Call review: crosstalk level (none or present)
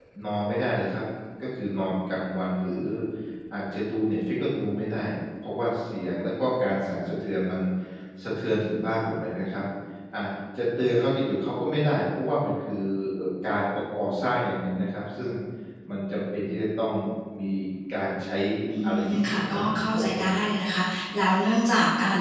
present